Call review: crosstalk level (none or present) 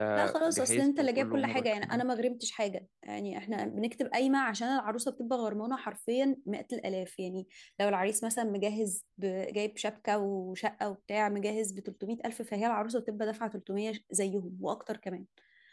present